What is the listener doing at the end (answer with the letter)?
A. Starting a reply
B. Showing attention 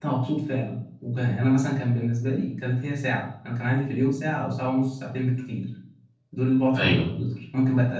B